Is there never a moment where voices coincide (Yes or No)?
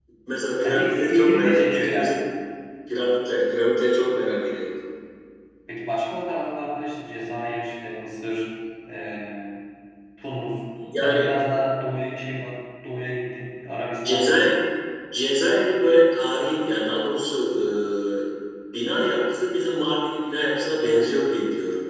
No